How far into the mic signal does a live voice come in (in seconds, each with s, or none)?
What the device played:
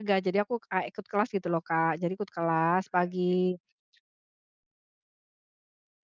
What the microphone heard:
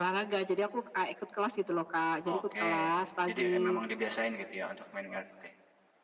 2.3 s